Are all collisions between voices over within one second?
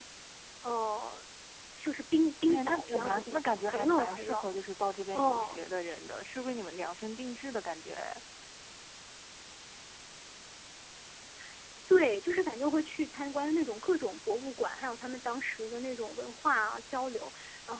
No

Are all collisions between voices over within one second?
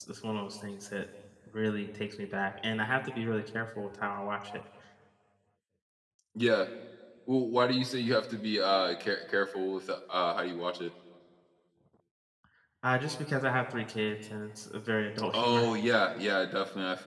Yes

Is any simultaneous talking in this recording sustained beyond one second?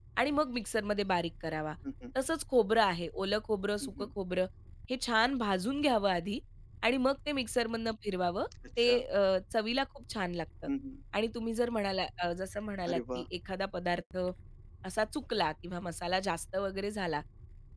No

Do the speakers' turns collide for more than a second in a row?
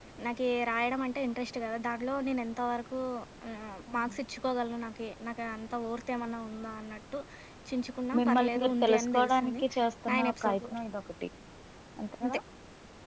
Yes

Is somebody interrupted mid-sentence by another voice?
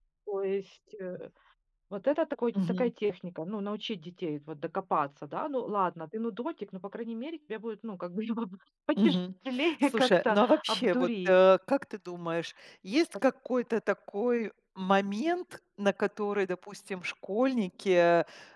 Yes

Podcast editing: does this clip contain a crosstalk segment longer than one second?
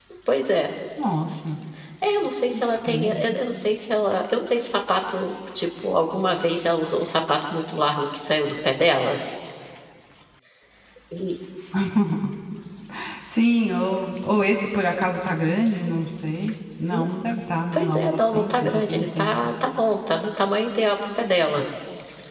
Yes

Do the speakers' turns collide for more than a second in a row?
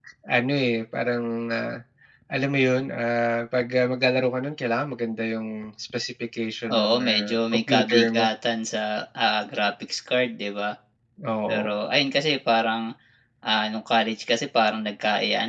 Yes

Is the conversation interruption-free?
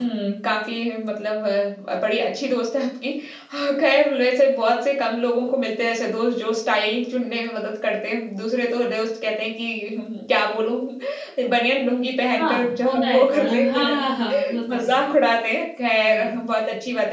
No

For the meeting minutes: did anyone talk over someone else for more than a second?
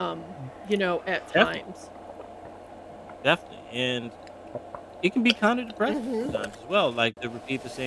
No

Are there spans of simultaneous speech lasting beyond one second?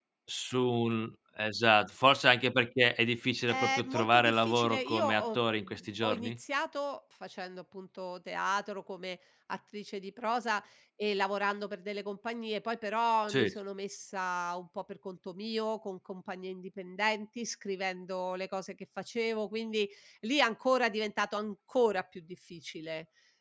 Yes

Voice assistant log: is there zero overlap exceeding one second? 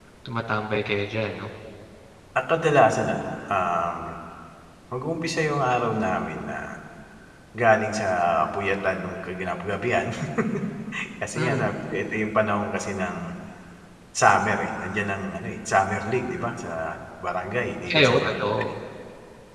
Yes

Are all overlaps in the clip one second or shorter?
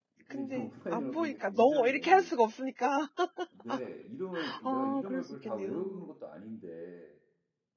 No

